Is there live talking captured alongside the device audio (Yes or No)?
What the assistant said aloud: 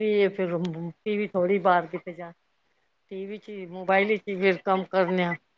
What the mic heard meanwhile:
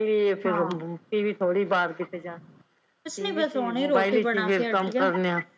Yes